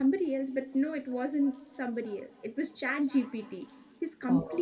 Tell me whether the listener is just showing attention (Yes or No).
Yes